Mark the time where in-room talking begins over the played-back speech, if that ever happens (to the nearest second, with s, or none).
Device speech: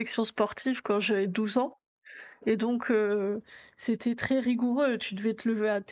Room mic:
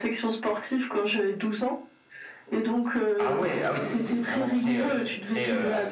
3 s